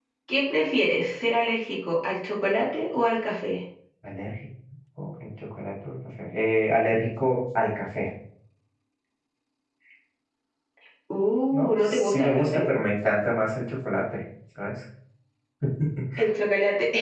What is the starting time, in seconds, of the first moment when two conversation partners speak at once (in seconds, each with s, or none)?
11.5 s